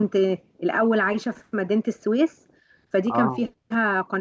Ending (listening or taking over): listening